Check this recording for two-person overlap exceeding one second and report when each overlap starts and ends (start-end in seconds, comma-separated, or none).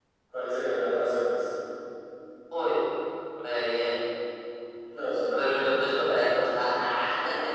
none